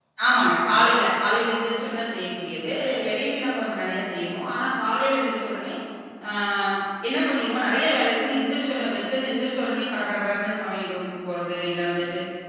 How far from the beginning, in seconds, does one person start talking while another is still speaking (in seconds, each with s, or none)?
none